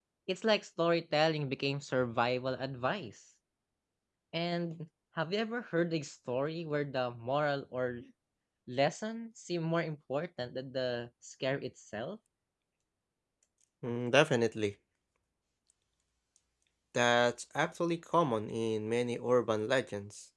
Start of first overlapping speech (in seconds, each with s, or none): none